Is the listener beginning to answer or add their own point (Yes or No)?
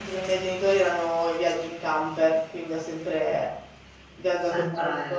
No